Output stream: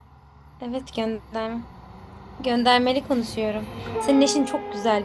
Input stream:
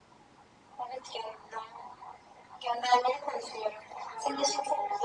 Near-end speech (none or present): none